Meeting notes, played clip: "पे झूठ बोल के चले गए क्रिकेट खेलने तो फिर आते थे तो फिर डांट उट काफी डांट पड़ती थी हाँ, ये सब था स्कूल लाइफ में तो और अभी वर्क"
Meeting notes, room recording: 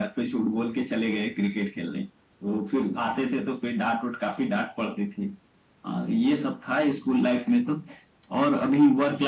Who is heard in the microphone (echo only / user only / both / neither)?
echo only